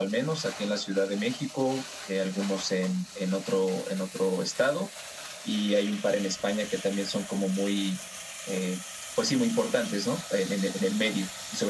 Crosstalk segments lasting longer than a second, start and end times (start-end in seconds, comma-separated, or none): none